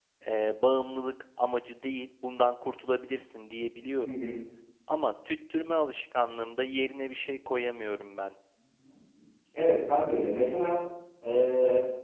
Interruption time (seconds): none

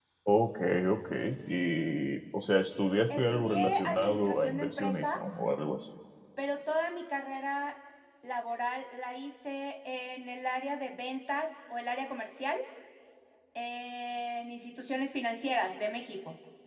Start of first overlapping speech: 3.1 s

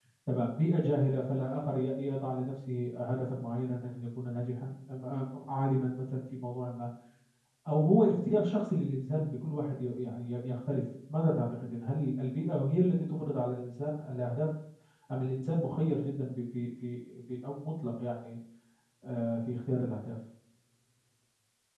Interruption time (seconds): none

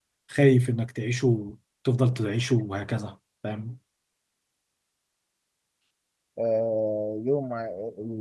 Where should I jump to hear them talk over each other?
none

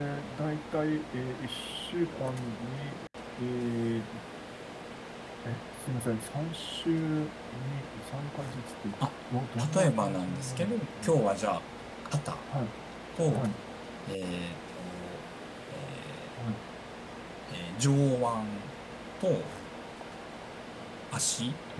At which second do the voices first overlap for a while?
9.8 s

